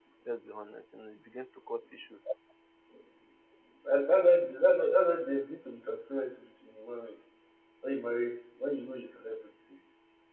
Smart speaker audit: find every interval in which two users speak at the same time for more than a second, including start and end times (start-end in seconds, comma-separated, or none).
none